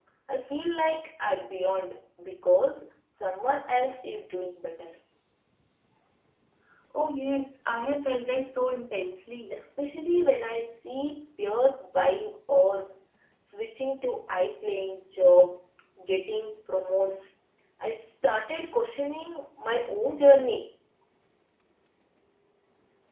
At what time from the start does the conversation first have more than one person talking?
none

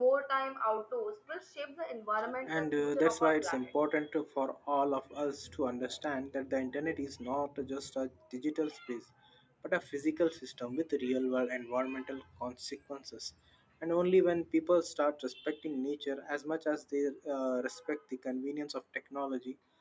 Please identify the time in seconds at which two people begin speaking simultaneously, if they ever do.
2.3 s

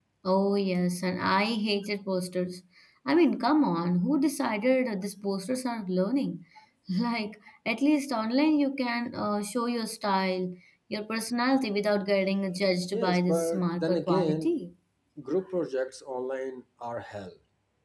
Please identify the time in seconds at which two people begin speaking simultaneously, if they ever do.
12.9 s

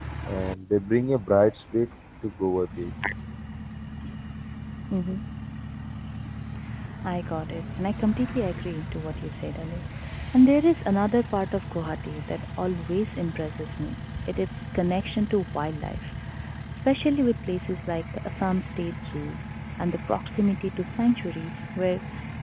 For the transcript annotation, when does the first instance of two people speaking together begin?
none

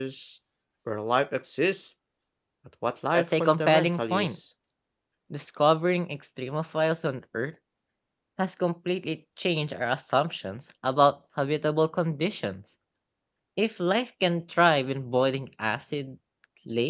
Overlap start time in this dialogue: 3.1 s

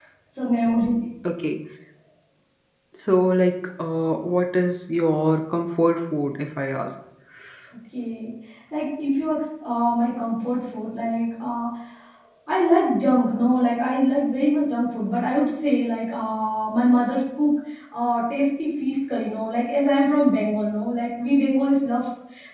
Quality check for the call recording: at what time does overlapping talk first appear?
none

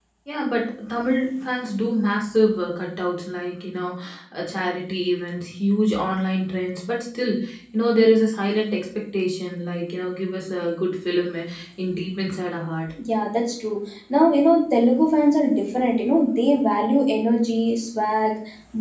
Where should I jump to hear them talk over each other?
none

